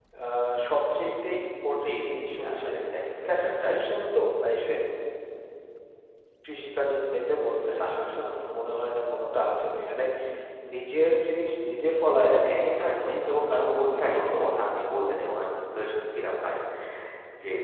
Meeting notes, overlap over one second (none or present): present